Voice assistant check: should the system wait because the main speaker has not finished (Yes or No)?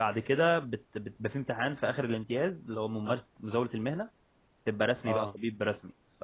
Yes